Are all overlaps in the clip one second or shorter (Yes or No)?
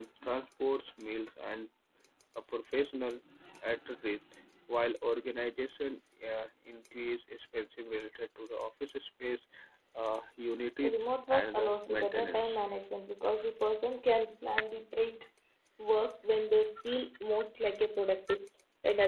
No